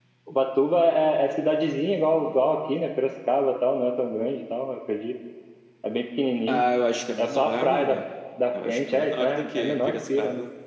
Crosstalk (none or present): present